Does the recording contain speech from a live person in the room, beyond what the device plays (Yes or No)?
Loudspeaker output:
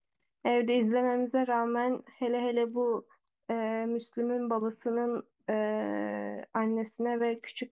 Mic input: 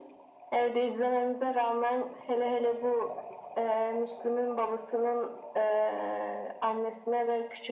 No